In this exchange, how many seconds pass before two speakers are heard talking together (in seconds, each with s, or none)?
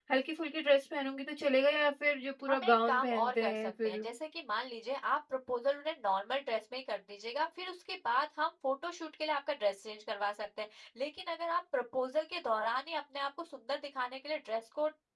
2.5 s